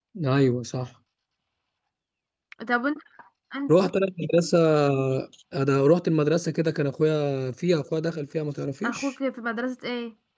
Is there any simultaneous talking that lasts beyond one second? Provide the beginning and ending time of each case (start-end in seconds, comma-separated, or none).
none